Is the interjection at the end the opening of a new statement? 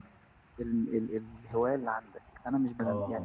No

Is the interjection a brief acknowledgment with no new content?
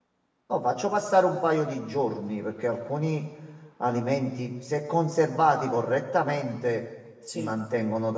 Yes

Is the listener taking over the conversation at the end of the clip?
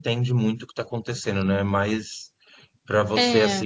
No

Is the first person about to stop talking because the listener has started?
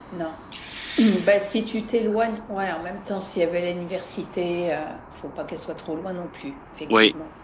Yes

